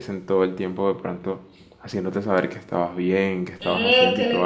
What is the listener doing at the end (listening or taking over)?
taking over